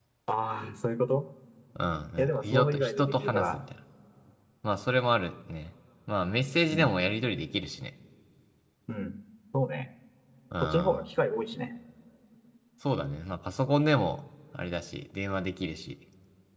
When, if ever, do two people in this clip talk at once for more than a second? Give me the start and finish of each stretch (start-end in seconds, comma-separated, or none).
2.2-3.6